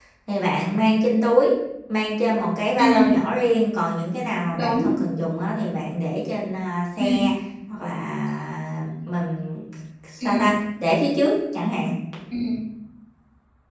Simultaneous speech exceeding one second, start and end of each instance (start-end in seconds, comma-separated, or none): none